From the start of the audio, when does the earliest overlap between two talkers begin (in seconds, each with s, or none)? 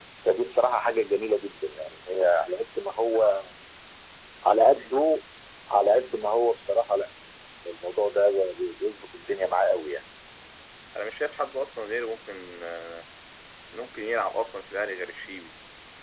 none